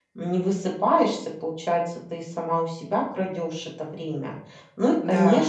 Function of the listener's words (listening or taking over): listening